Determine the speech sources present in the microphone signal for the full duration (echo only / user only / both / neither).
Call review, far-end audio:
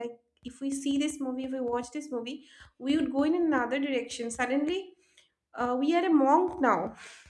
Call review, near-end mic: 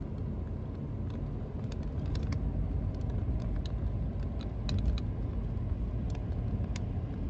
neither